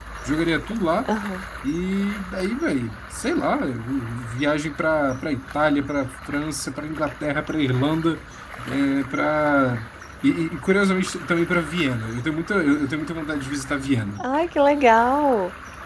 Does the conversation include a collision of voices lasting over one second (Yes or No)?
No